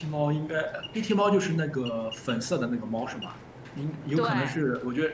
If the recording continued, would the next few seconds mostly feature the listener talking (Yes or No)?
No